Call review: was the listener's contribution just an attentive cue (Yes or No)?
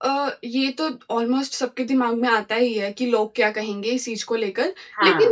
Yes